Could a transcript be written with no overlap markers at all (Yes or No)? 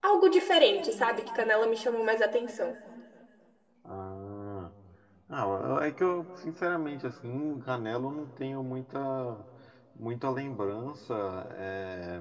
Yes